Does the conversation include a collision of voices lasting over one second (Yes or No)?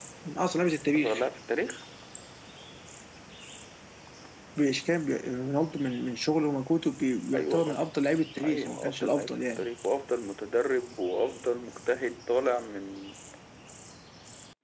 Yes